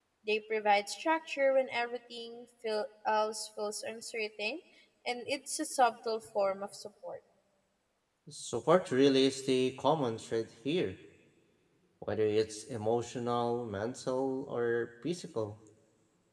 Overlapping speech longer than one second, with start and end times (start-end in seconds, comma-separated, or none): none